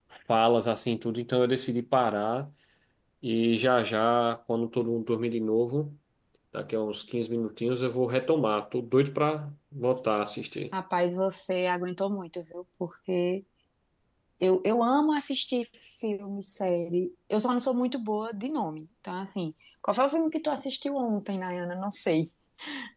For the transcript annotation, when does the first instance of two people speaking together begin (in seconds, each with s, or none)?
none